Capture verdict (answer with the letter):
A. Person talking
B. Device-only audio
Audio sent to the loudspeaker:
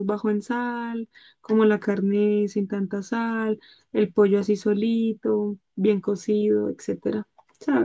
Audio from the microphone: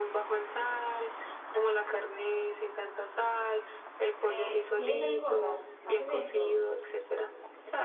A